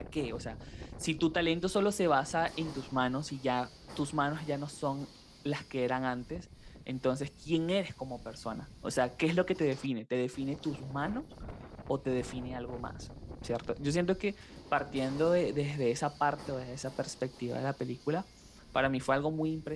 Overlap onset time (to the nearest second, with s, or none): none